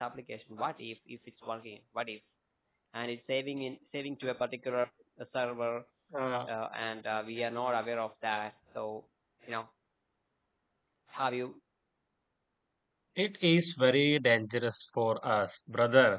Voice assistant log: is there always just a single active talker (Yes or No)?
Yes